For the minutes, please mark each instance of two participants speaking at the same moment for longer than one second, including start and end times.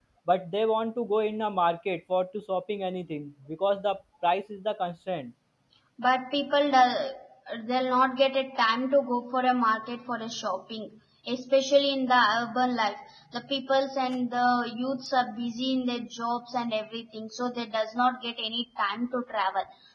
none

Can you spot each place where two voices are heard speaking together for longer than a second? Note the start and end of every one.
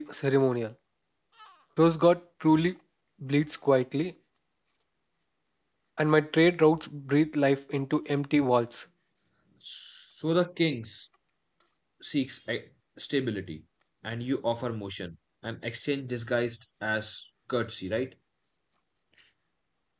none

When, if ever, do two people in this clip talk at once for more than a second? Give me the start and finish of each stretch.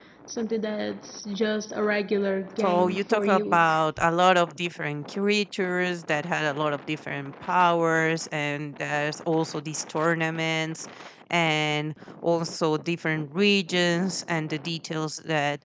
2.6-3.8

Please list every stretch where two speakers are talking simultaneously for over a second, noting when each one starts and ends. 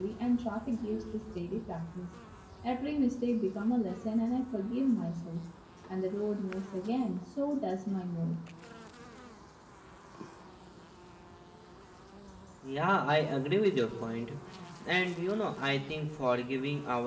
none

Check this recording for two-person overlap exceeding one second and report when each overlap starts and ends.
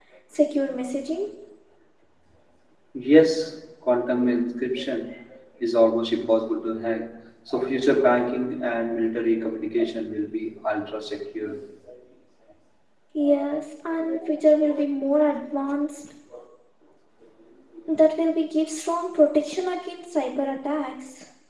none

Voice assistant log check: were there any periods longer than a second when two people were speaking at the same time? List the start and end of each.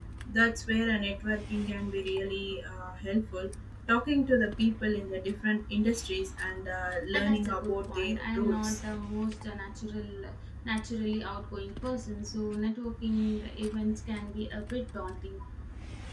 7.1-8.8

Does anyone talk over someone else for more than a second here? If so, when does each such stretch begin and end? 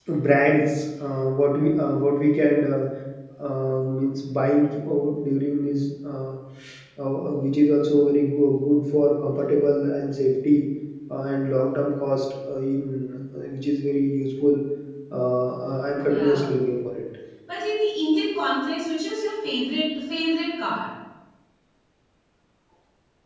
none

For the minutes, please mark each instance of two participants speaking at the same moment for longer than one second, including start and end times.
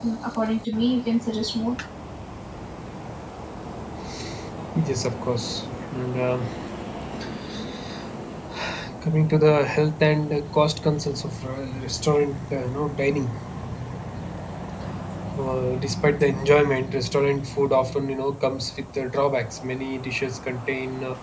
none

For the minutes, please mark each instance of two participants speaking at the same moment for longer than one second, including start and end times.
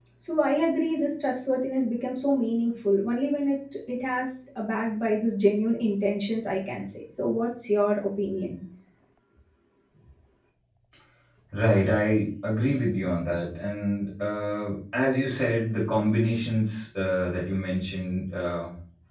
none

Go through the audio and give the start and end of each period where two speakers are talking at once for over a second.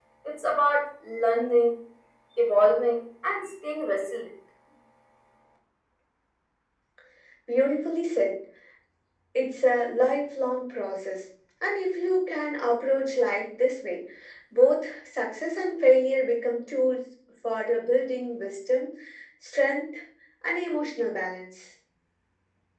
none

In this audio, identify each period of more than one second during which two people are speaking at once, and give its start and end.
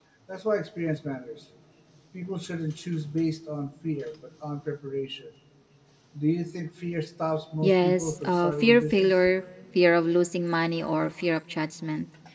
7.6-9.1

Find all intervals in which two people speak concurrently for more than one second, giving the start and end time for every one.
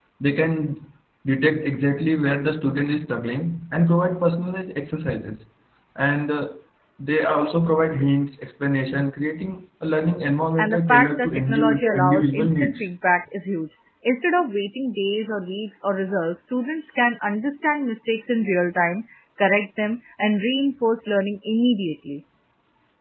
10.6-12.8

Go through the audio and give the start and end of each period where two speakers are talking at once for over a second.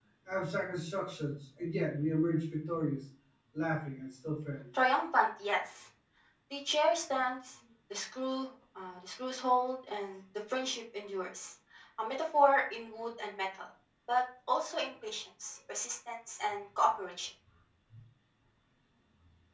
none

